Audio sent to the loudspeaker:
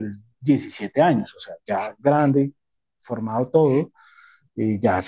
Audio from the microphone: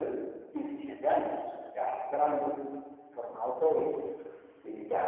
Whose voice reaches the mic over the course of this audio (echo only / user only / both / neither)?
echo only